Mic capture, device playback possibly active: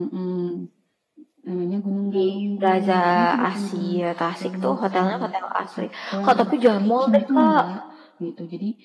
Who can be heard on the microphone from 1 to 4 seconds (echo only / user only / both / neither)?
both